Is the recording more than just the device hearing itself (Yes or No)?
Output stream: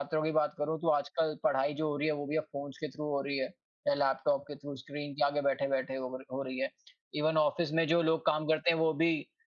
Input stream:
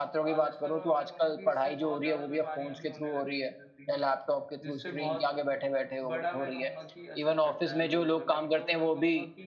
Yes